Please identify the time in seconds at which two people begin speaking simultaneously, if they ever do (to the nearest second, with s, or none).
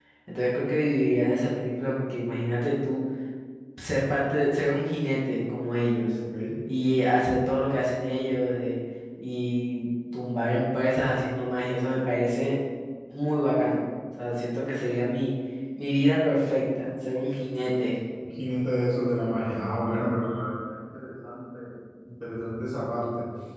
none